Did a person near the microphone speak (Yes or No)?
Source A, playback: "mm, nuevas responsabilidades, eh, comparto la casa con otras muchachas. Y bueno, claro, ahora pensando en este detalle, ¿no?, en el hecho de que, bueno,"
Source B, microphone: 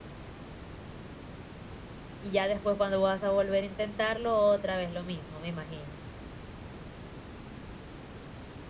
Yes